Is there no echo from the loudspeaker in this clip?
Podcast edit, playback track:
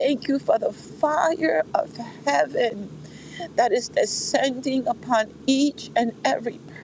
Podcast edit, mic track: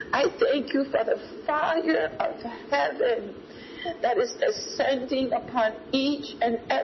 No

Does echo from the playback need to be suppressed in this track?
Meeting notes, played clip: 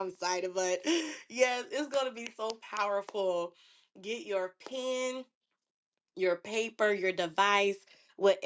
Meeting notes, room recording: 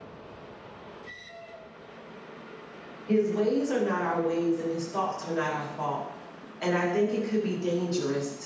No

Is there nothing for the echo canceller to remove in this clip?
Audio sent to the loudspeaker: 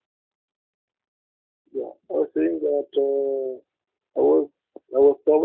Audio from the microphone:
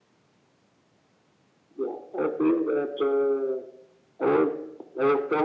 No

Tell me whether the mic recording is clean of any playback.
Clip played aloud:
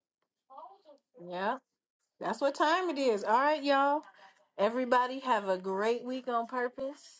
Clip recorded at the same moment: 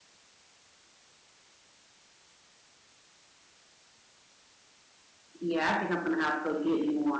Yes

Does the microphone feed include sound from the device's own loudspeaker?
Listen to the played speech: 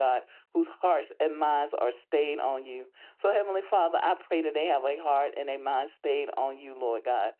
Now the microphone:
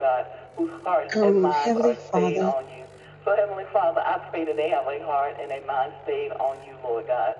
Yes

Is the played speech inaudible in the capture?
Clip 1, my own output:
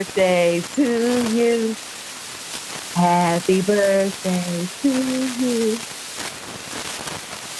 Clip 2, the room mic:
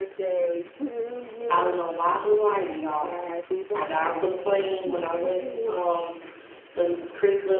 No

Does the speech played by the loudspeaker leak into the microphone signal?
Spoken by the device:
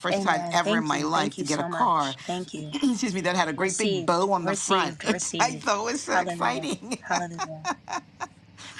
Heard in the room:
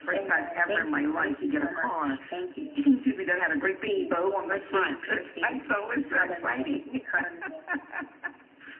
Yes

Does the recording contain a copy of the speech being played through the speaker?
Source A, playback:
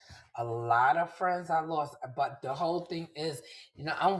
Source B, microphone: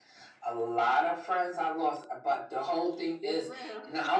Yes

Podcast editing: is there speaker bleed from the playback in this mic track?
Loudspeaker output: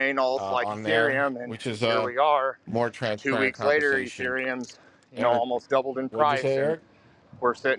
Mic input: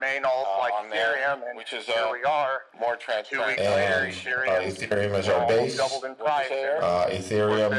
Yes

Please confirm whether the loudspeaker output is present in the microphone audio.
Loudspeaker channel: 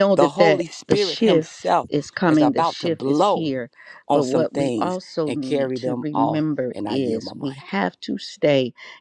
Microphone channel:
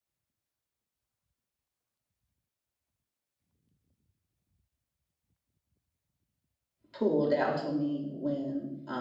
No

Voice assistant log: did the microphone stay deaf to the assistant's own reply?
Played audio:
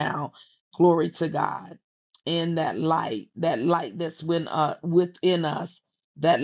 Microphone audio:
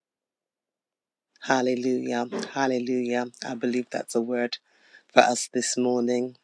Yes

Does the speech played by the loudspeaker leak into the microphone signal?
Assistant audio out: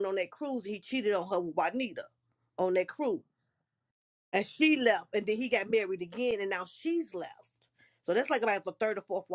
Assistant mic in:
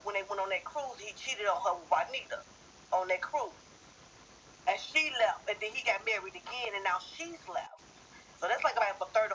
Yes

